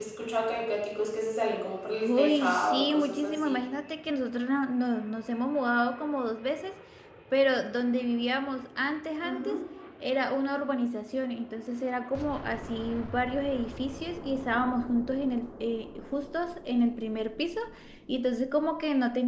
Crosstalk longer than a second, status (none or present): present